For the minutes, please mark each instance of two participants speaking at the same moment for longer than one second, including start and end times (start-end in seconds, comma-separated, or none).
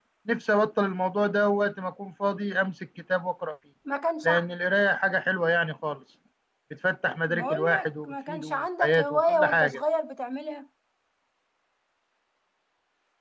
7.3-9.8